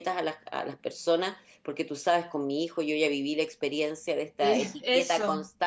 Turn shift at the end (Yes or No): No